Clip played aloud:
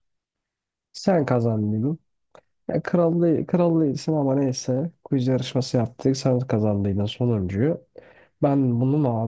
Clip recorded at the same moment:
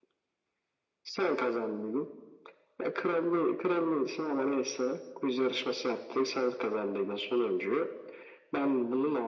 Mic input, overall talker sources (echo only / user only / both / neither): echo only